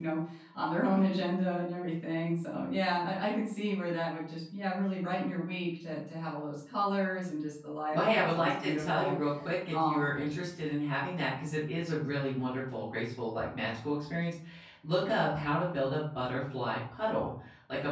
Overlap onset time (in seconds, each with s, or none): 7.9 s